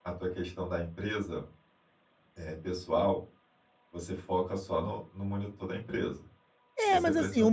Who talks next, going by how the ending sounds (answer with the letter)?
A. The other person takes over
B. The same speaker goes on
A